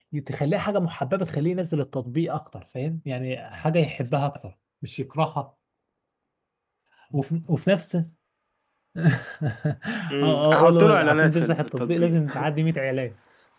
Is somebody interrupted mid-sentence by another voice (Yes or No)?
Yes